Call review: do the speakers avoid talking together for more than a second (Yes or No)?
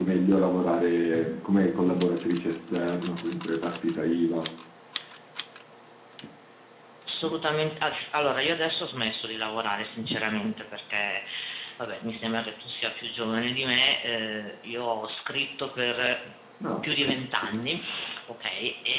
Yes